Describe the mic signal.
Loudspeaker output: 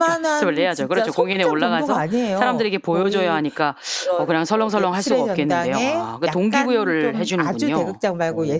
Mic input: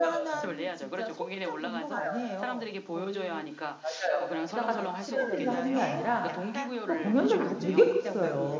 both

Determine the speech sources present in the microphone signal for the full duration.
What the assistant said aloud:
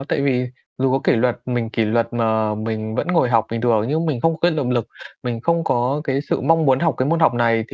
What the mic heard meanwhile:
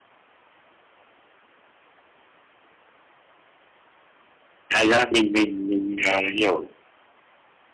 user only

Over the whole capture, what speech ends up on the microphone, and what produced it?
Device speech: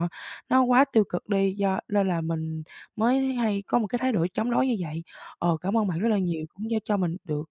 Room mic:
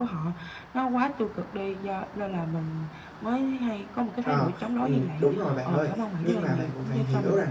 both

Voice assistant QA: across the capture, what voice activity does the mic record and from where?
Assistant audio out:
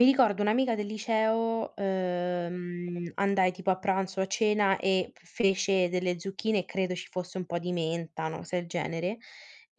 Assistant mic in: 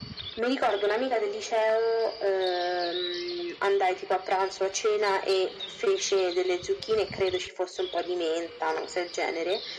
echo only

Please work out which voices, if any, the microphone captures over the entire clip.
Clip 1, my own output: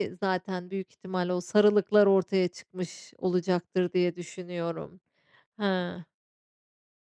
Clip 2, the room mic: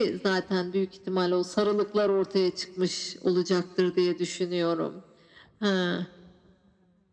echo only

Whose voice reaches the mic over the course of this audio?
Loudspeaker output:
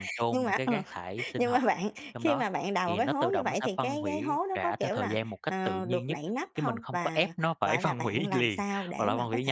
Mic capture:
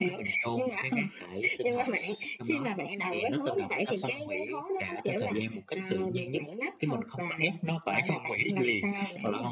echo only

